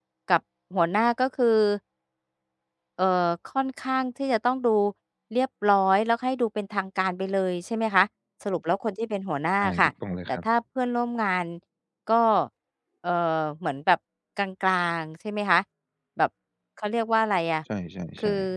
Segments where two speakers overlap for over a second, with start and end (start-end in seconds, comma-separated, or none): none